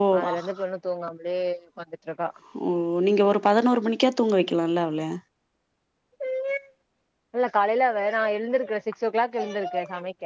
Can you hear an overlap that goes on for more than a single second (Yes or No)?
No